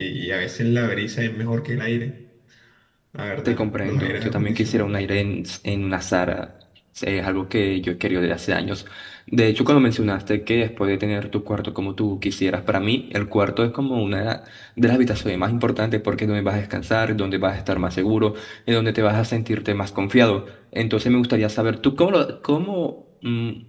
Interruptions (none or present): present